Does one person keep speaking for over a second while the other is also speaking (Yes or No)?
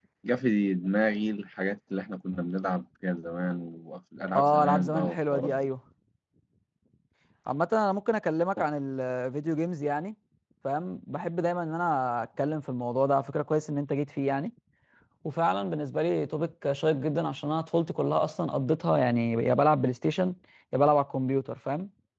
Yes